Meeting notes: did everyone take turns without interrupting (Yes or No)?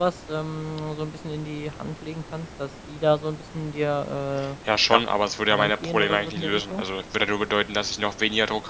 No